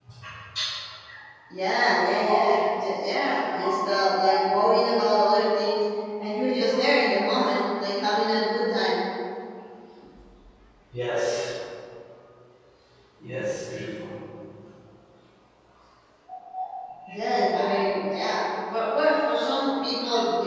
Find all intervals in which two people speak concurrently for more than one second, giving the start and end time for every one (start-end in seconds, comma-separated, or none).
none